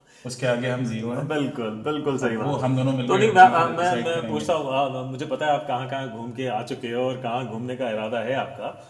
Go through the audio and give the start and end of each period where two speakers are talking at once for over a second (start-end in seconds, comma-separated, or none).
3.1-4.5